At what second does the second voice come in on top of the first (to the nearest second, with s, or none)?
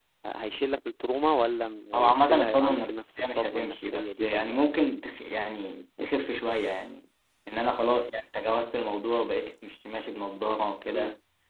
2 s